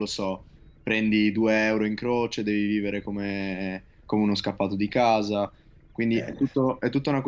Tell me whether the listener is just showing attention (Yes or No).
Yes